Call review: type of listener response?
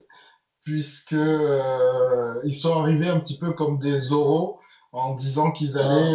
listening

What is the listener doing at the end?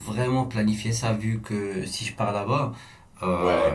listening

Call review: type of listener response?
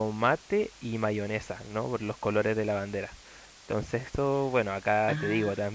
listening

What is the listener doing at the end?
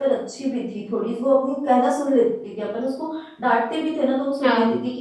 listening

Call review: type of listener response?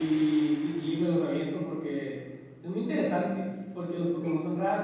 listening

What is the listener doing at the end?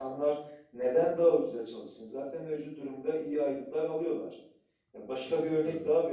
listening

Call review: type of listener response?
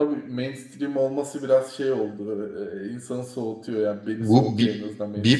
taking over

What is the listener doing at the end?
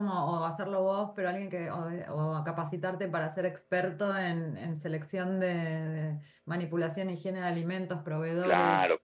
taking over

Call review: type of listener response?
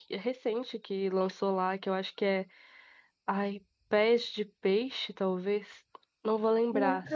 listening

